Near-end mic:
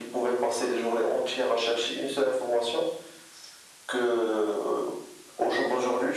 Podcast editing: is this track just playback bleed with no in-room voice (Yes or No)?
Yes